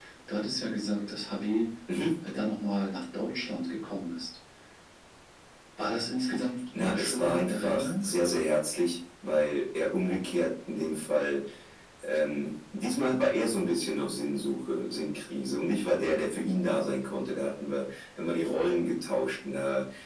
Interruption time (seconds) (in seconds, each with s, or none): 6.8 s